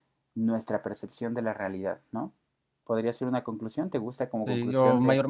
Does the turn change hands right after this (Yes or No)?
Yes